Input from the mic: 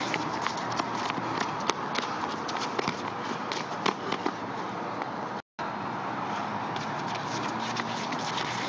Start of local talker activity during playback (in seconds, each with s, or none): none